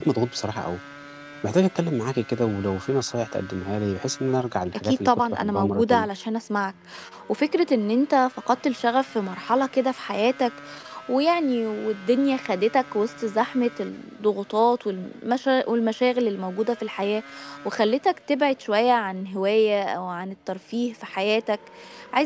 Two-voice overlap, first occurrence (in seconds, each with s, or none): 4.7 s